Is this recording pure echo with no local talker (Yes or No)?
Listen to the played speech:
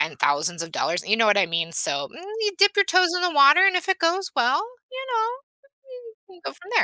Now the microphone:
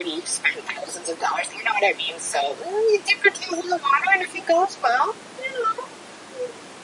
Yes